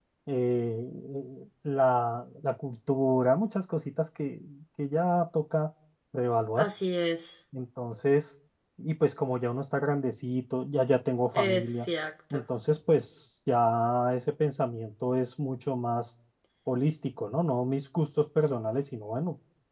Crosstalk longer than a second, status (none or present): none